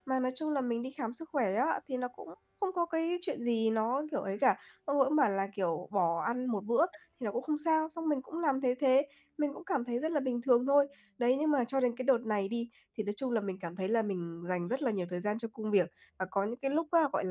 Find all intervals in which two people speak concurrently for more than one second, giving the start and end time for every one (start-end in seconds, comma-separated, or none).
none